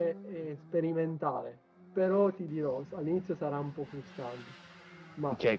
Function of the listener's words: taking over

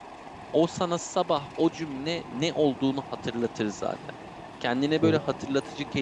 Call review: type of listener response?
listening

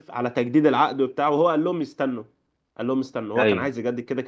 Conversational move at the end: listening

